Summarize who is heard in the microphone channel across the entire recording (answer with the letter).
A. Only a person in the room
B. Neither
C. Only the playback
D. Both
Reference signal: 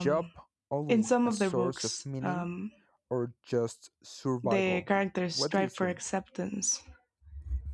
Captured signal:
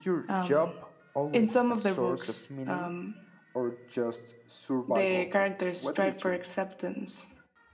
C